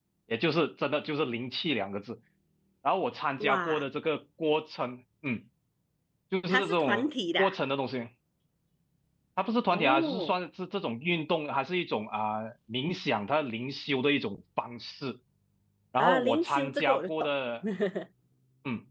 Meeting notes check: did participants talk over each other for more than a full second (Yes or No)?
Yes